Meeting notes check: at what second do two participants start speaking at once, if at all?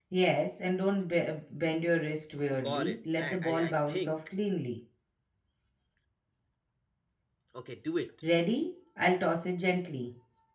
2.4 s

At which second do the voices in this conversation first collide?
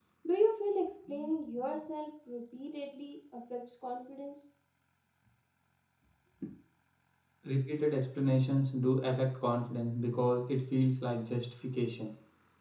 none

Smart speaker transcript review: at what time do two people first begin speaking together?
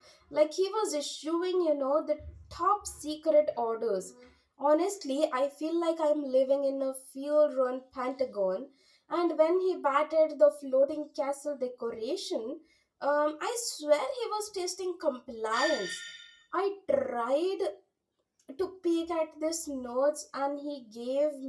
none

